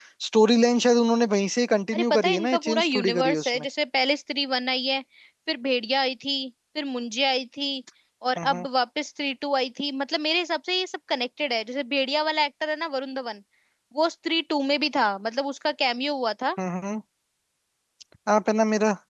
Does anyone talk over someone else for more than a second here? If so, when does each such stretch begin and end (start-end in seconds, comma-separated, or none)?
1.9-3.6